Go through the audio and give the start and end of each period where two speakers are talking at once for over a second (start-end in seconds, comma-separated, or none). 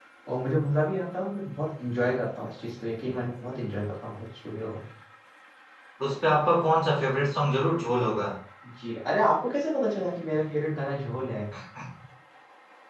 none